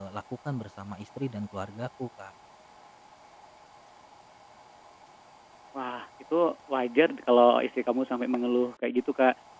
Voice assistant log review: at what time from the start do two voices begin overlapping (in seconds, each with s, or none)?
none